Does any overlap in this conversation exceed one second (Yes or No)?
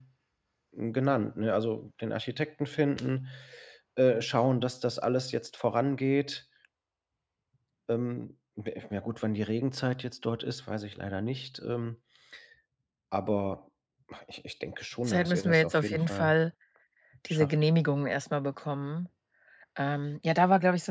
Yes